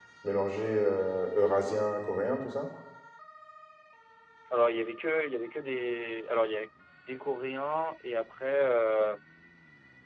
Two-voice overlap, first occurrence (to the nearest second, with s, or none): none